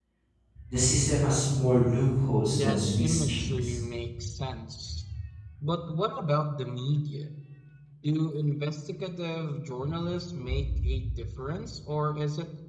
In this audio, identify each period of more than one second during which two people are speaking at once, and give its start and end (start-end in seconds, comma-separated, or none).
2.5-3.8